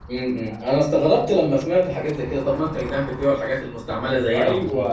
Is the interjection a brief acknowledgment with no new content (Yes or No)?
No